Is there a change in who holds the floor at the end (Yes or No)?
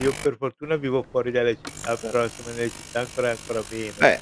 Yes